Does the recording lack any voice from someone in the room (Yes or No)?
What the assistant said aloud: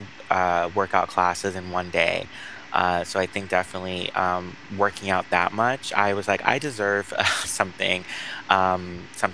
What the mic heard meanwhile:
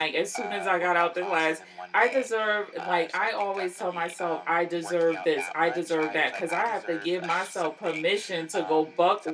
No